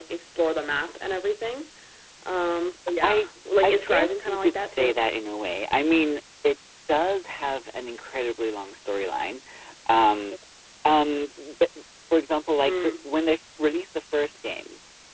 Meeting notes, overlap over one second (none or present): present